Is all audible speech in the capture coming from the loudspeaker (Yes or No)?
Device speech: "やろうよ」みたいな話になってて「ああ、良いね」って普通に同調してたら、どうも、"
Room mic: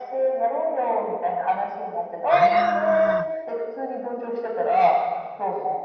No